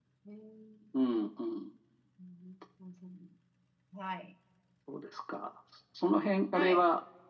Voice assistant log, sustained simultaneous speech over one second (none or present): none